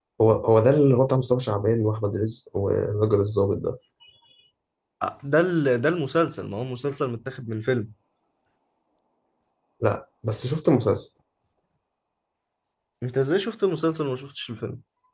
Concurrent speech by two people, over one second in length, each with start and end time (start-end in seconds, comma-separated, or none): none